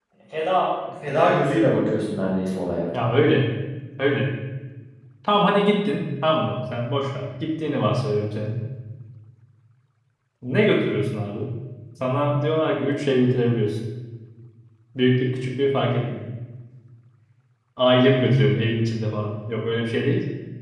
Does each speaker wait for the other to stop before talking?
Yes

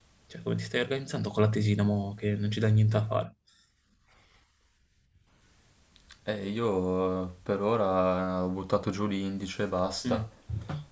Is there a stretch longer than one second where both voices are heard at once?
No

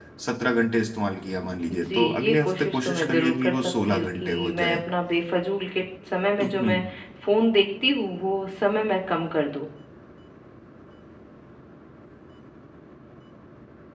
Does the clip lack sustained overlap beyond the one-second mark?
No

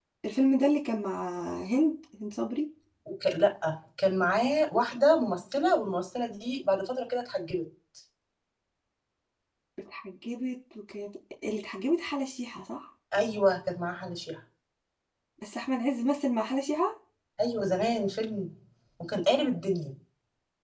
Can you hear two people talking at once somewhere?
No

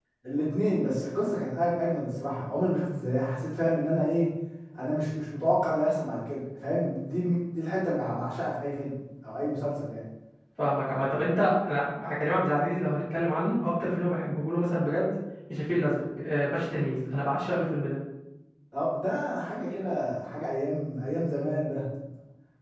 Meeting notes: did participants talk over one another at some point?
No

